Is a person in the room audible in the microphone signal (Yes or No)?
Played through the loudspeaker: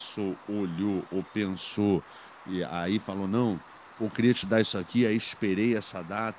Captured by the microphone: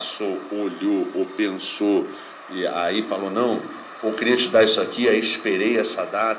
No